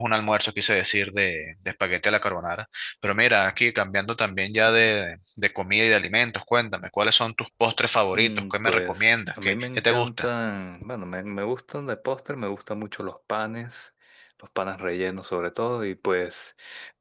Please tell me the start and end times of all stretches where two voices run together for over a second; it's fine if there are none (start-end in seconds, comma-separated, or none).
8.1-10.3